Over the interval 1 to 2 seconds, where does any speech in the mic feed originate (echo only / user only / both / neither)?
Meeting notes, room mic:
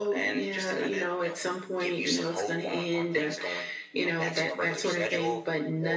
echo only